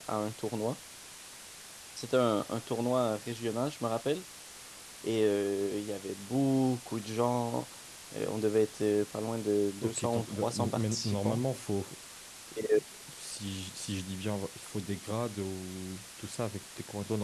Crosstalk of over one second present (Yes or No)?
Yes